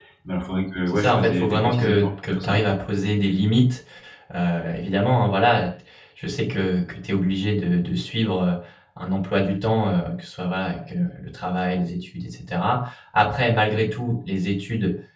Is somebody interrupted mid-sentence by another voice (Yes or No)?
Yes